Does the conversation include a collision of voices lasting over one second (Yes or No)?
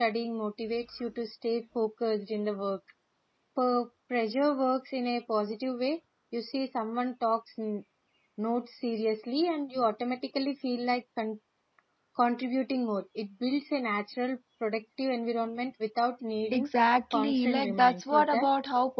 Yes